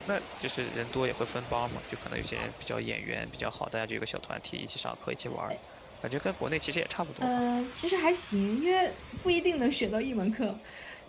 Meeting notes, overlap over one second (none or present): none